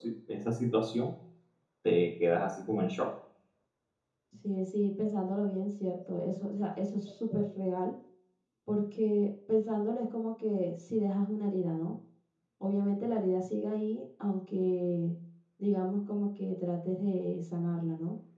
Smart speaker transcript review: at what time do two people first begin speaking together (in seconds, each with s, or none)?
none